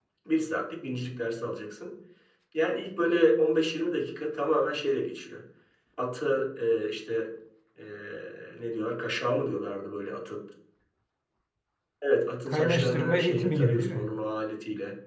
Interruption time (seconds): 12.5 s

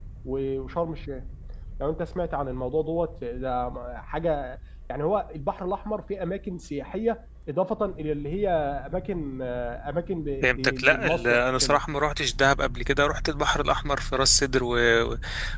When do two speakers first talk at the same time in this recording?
10.4 s

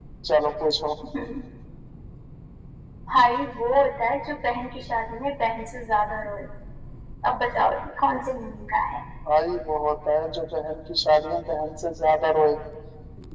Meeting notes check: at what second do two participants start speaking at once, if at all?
none

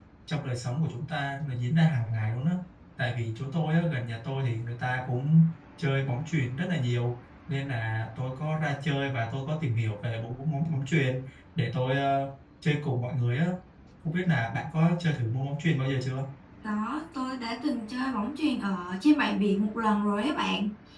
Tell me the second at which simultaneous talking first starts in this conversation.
none

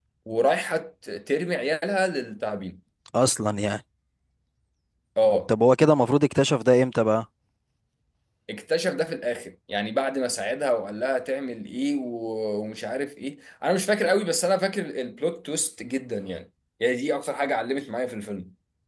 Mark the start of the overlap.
none

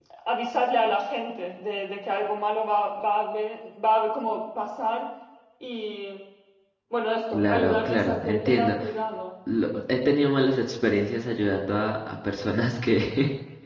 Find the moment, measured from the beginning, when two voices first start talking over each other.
7.3 s

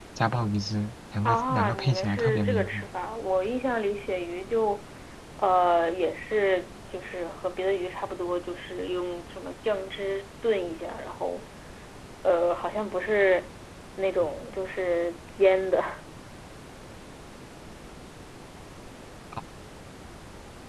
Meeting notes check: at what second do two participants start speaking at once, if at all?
1.2 s

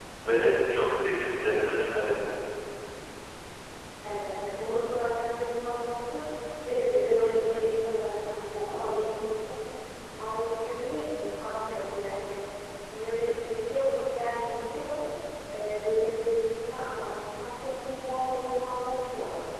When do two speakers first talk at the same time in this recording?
none

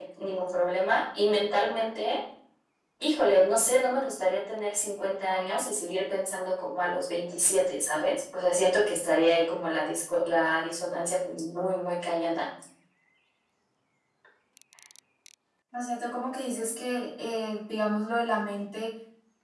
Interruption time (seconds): none

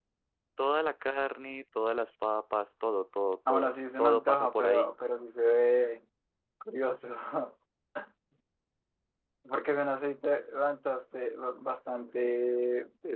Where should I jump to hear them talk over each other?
3.5 s

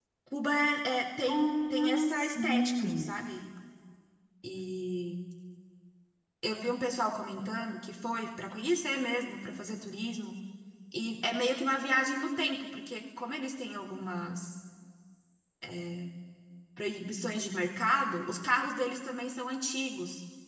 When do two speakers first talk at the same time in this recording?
1.3 s

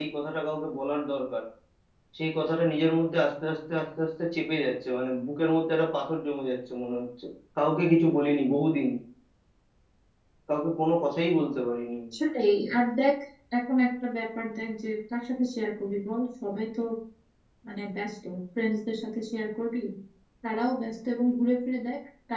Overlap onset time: none

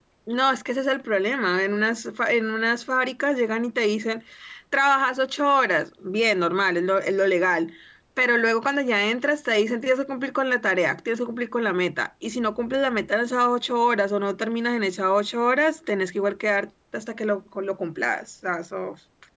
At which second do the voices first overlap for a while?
none

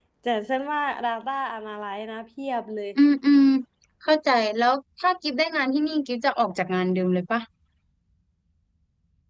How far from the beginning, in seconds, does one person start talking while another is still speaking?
none

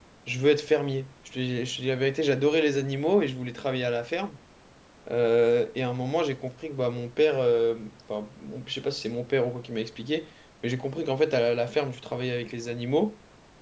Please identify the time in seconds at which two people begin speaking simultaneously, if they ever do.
none

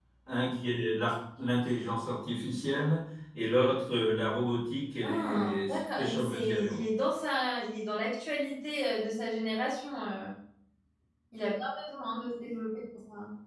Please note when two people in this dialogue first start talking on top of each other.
5.0 s

